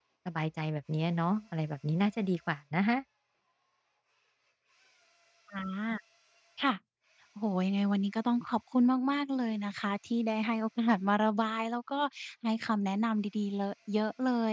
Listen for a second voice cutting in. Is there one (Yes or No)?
No